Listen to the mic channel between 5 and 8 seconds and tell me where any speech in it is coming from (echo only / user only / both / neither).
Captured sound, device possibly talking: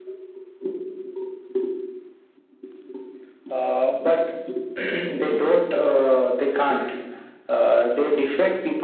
echo only